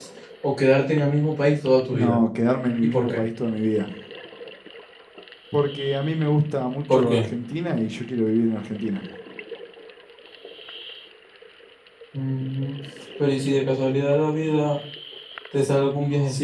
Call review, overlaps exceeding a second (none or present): none